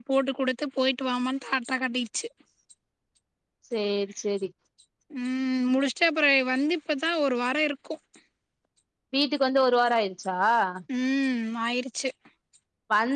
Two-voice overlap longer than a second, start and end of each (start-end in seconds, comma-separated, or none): none